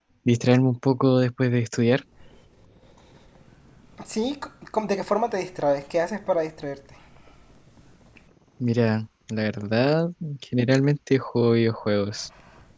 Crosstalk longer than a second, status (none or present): none